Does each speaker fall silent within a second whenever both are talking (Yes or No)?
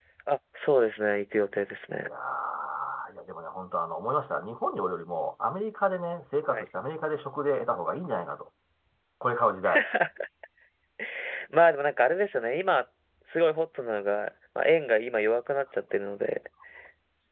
Yes